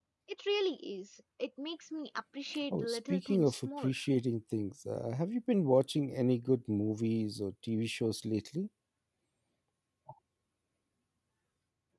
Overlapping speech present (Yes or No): Yes